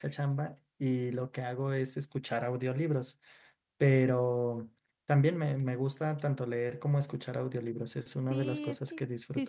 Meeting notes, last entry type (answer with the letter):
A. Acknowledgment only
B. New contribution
B